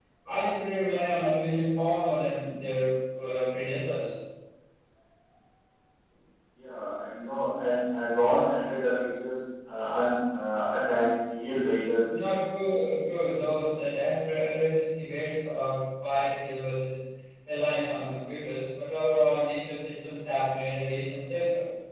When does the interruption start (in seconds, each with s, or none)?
none